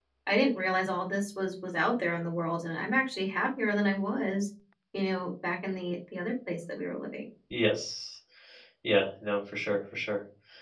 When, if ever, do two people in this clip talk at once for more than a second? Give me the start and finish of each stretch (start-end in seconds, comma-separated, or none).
none